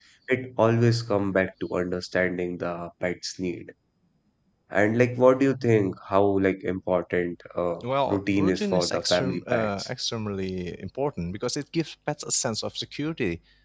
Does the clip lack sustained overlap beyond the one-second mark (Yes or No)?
No